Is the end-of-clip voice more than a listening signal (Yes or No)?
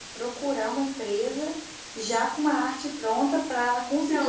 Yes